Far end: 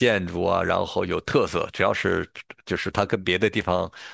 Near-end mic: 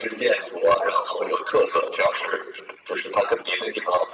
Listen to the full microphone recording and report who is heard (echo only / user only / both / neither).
echo only